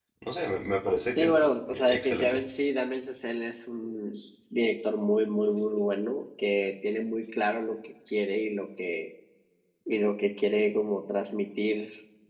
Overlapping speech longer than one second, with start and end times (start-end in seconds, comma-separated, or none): 1.2-2.4